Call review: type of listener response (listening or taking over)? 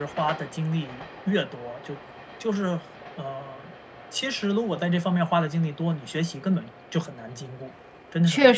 taking over